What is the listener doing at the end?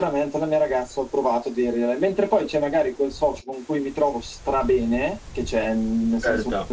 listening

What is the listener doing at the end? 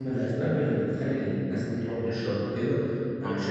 listening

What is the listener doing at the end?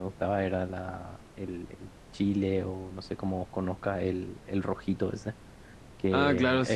taking over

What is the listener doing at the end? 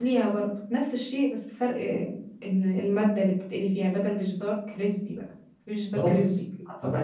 taking over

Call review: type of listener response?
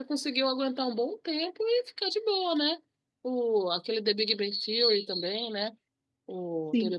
taking over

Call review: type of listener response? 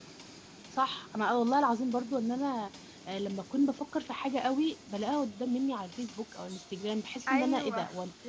listening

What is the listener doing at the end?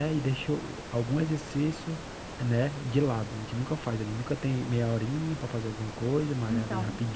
listening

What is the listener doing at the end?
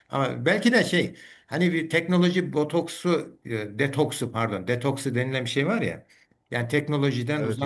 listening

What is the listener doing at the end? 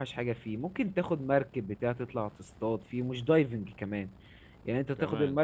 listening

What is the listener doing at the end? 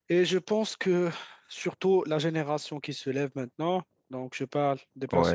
listening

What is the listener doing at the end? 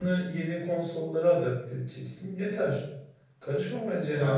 taking over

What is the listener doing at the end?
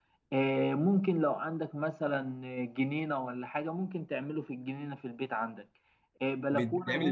listening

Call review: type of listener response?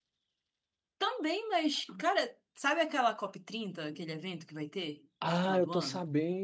taking over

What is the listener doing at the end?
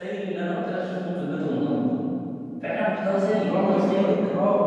taking over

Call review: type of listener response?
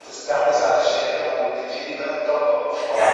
taking over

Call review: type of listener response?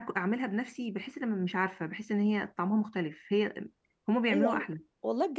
taking over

